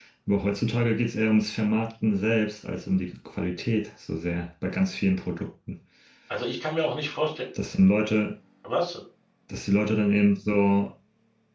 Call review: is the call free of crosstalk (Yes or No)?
Yes